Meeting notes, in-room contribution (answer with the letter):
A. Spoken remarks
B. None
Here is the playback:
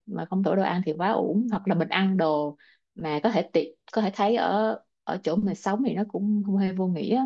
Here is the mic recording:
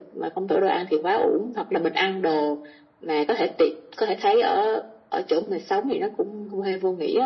B